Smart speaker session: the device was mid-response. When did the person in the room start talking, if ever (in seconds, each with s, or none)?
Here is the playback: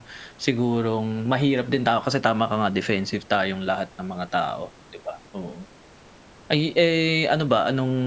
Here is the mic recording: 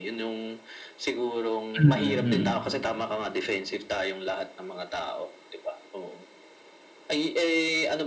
1.8 s